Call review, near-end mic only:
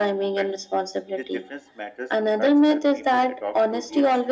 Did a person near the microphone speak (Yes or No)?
No